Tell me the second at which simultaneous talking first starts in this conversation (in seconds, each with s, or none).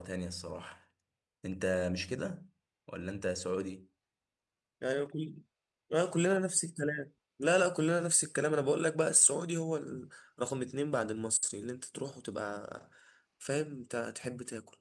none